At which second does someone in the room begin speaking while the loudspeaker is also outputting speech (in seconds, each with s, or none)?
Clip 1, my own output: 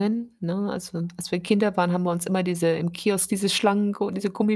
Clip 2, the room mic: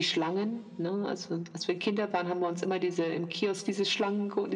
none